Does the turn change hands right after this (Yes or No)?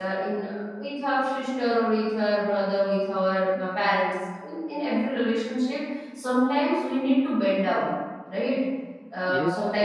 No